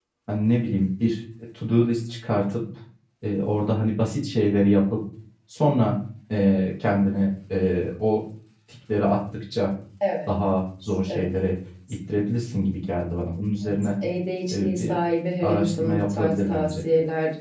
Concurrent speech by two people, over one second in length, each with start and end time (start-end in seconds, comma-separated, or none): 15.4-16.7